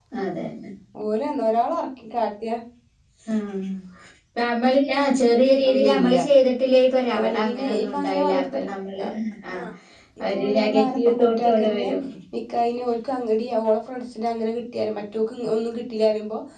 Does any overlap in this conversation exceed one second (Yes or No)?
Yes